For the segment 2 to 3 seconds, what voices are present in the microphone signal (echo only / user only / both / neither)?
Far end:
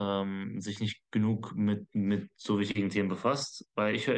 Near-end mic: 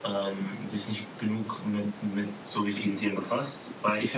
echo only